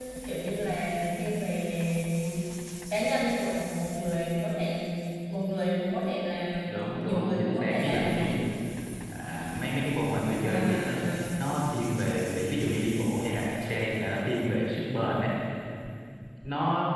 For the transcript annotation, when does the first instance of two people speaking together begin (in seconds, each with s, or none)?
7.0 s